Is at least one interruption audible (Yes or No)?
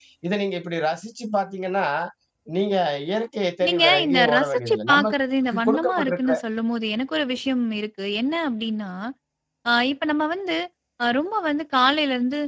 Yes